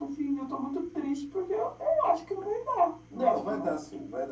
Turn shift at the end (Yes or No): Yes